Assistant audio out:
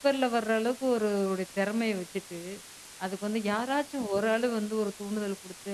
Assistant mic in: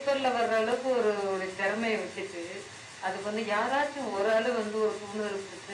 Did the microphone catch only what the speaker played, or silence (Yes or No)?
Yes